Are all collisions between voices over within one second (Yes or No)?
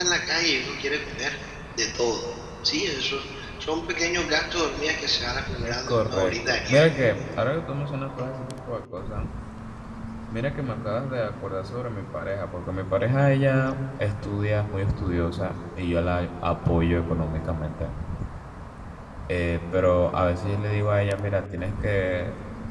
No